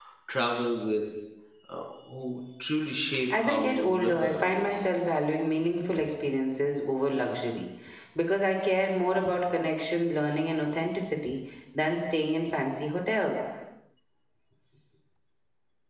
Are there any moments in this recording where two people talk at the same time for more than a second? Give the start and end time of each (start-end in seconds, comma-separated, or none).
3.4-4.8